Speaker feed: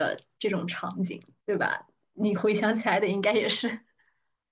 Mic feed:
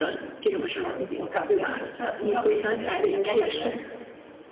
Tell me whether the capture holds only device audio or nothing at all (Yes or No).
No